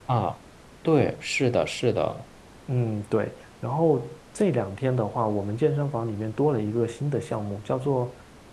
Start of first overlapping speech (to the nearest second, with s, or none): none